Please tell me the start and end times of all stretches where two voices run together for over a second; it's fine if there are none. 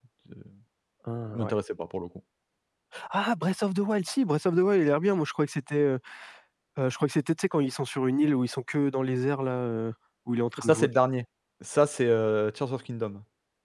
none

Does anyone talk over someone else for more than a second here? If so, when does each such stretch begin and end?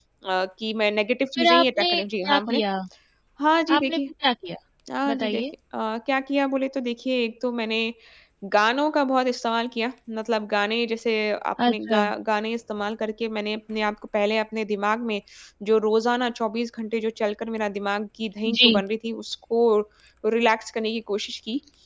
1.4-2.6

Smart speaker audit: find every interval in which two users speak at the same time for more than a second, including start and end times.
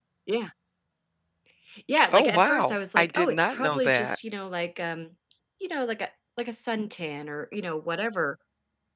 2.1-4.2

